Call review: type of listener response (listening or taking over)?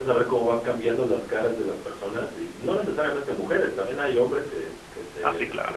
listening